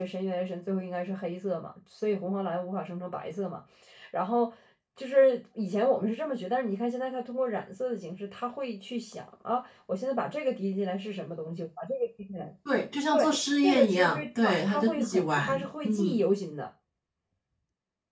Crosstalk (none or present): present